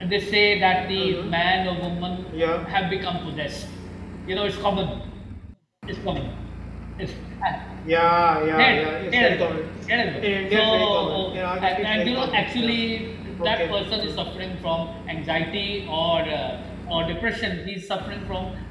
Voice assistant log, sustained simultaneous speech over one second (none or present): present